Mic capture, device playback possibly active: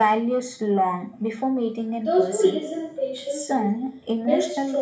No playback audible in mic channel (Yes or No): No